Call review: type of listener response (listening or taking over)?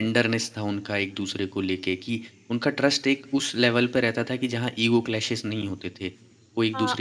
taking over